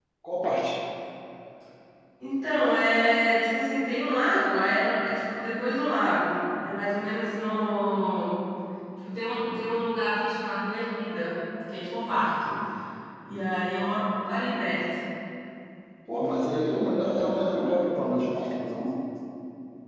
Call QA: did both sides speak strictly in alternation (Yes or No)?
Yes